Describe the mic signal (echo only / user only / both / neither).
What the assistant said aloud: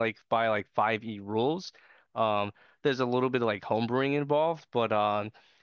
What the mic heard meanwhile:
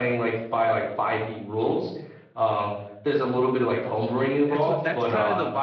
both